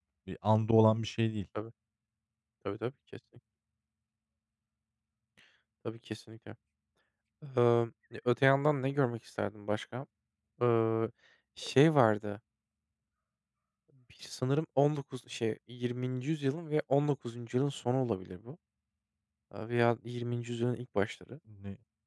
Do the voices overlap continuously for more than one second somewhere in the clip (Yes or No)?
No